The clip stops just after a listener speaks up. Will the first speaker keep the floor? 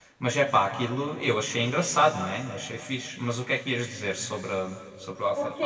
No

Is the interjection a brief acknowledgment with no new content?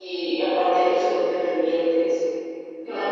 Yes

